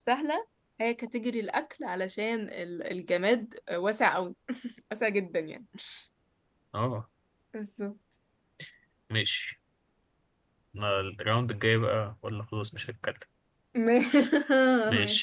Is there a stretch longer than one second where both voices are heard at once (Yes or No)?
No